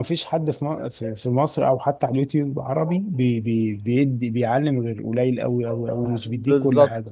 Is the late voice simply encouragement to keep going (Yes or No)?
No